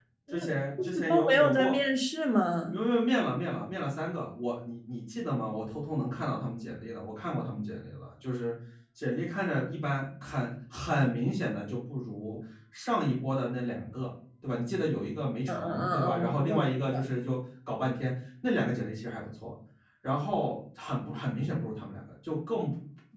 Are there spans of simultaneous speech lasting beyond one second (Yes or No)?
Yes